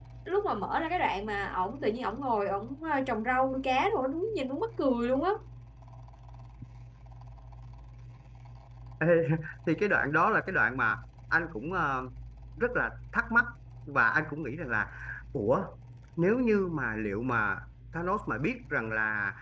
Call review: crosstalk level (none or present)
none